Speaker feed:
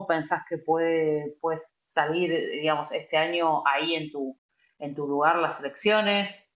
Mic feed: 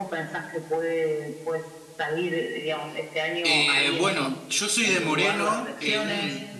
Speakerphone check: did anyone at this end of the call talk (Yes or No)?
Yes